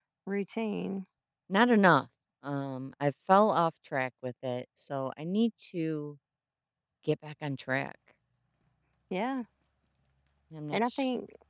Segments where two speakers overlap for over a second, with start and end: none

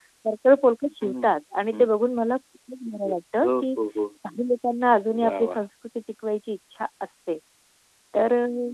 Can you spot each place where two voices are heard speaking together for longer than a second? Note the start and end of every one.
none

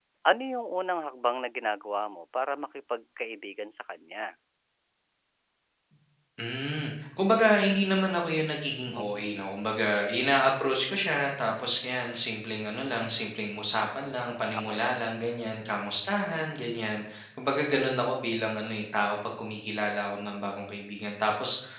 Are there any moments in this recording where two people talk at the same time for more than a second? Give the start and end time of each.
none

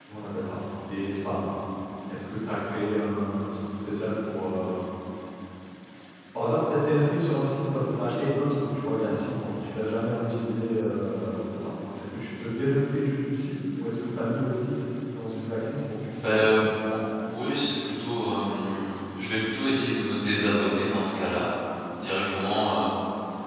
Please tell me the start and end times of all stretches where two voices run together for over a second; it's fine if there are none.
none

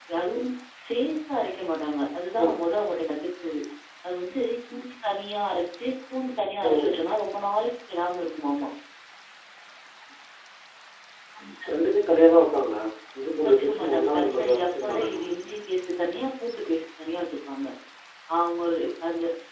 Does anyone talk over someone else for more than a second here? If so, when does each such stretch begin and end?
13.4-15.3

